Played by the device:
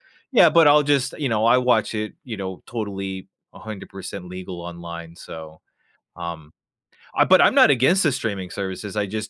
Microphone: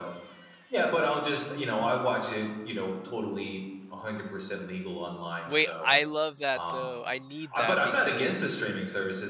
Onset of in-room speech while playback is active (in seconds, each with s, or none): 5.5 s